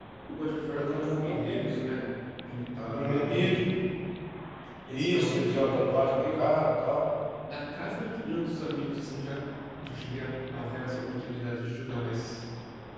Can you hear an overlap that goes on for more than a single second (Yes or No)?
Yes